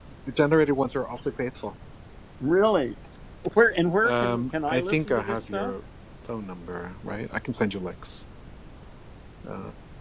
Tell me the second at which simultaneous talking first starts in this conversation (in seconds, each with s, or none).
4.0 s